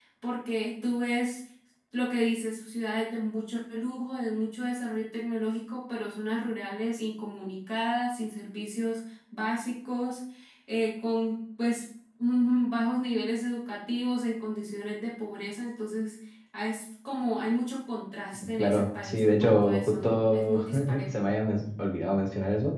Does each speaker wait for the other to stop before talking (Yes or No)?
No